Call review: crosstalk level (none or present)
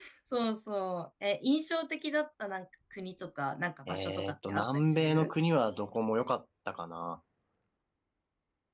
present